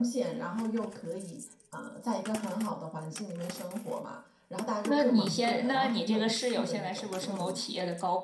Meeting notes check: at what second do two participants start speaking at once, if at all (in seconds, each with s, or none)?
4.9 s